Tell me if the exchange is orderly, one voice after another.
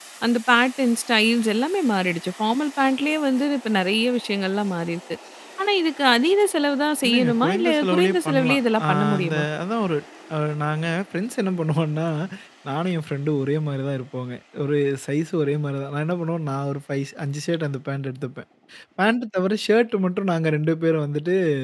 No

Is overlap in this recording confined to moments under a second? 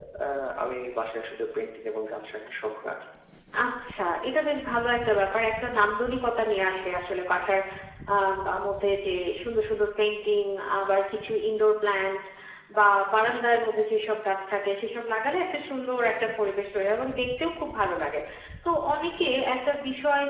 Yes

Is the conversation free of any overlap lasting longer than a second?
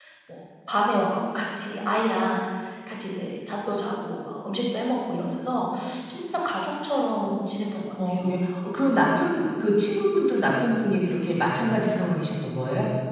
Yes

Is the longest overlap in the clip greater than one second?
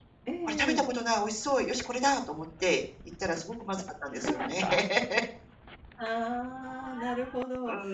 No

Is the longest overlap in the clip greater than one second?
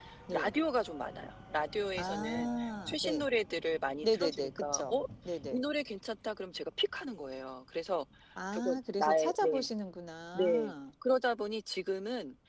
Yes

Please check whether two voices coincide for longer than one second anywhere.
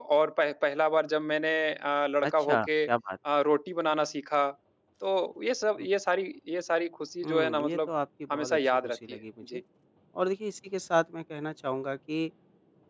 Yes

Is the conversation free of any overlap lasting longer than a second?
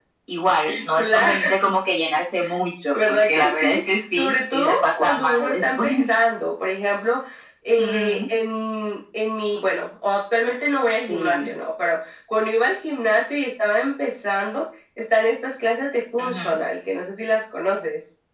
No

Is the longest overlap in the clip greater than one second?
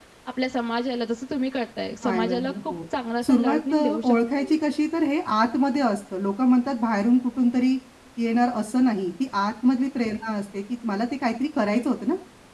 Yes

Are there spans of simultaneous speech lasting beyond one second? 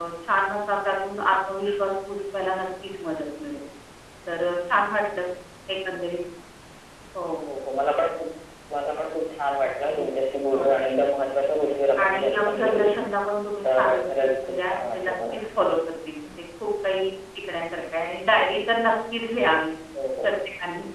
Yes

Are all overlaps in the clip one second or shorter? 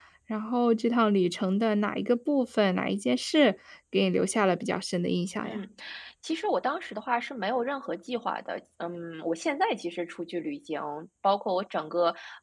Yes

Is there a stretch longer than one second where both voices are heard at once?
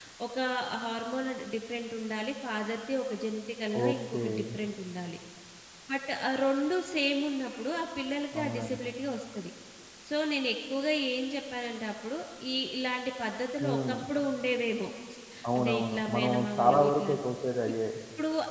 Yes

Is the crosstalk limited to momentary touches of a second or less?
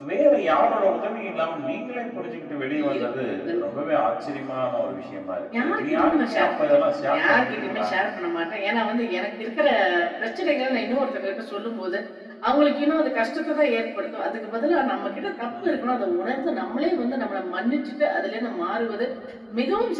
No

